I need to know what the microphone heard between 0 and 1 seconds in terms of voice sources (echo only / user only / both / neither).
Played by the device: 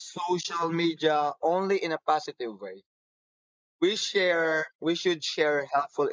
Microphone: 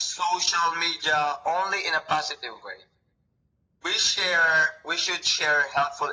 echo only